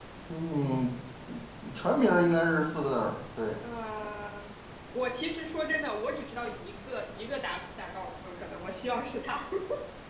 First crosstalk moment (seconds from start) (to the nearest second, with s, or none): none